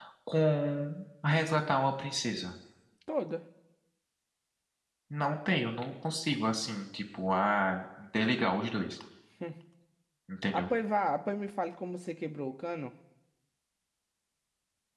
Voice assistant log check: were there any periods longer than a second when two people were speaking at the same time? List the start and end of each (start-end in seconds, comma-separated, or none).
none